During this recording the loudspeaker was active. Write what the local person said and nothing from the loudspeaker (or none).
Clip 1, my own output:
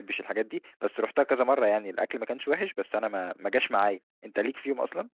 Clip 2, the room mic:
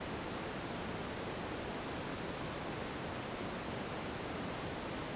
none